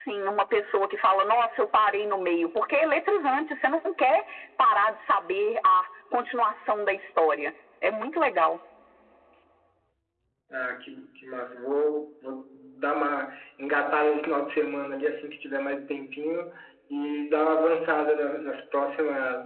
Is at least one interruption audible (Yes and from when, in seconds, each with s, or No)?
No